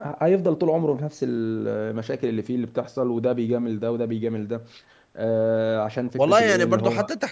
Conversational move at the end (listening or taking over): taking over